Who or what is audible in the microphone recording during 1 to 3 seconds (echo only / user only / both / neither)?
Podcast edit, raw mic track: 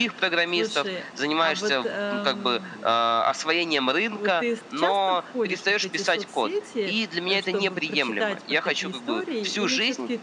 both